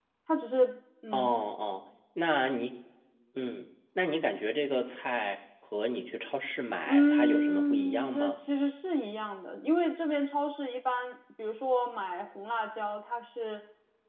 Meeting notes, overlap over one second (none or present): present